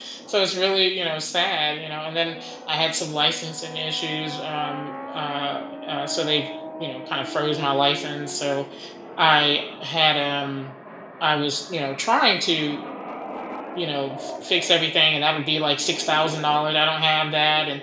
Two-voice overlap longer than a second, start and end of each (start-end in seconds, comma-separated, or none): none